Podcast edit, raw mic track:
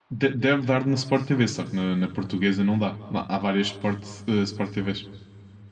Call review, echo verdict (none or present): none